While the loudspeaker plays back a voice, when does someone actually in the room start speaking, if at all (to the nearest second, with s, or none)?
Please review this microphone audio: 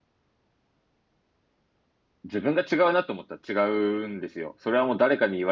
2 s